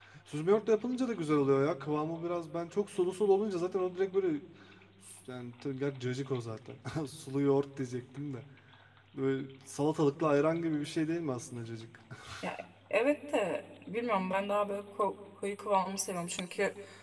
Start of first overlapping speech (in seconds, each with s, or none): none